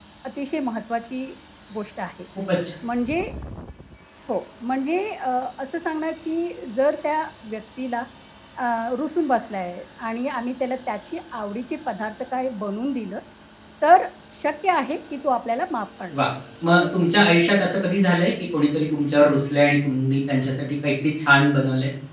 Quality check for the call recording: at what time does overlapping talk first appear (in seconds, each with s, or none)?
none